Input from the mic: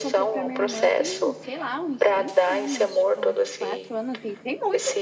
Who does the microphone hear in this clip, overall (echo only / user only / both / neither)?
both